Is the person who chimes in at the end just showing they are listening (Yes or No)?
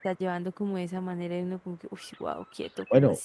No